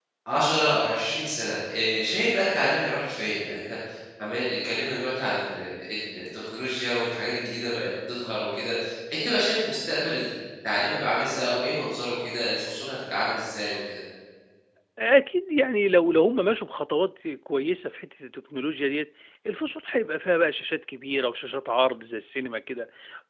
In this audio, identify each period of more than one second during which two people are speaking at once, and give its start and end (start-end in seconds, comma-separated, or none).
none